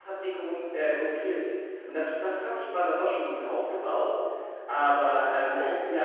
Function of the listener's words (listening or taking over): taking over